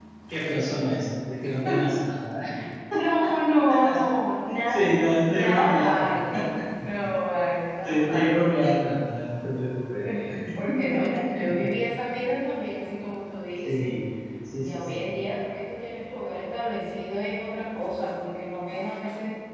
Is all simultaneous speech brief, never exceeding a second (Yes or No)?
No